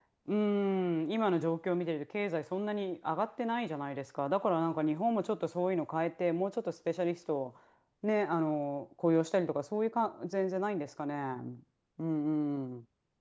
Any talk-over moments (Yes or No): No